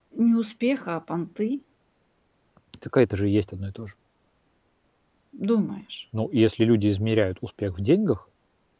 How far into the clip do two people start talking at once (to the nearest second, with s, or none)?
none